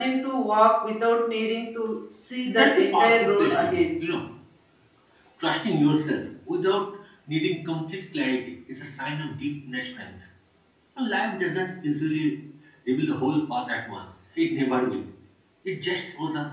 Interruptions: present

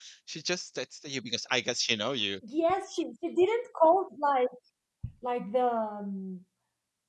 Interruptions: none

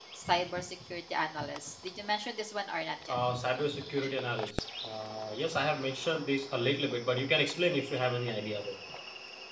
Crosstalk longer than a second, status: none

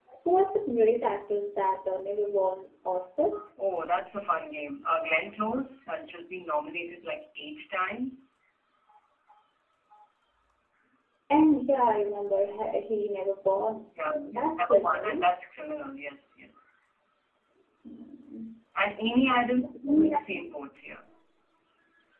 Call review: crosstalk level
present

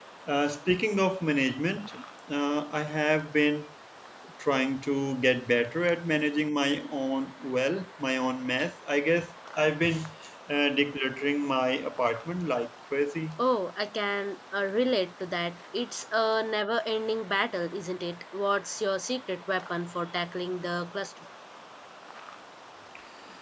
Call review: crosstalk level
none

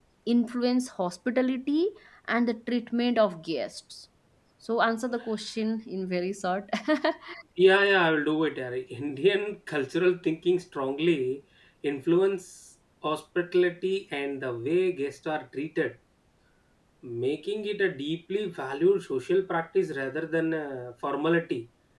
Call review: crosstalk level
none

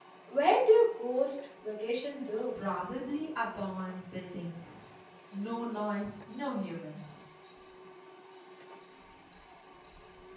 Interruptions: none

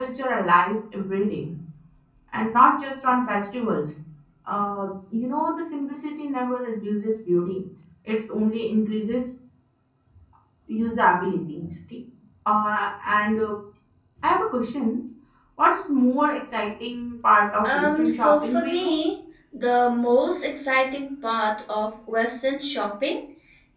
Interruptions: present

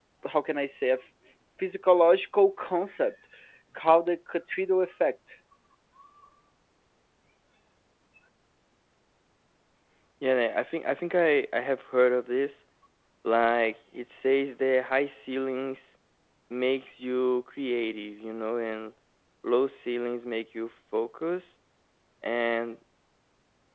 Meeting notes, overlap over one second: none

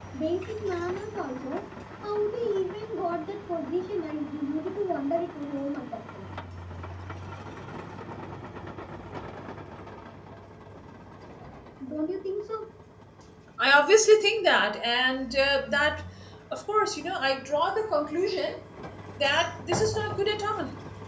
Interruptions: none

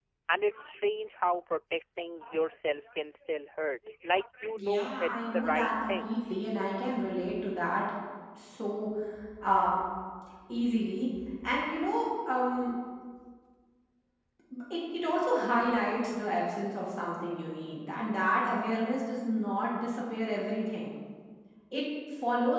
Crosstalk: present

